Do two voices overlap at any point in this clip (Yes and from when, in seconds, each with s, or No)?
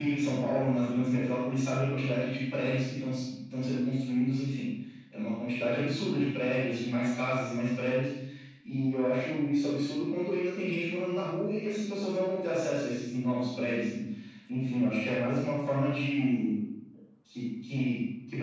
No